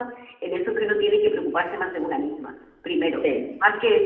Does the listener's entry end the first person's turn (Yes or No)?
No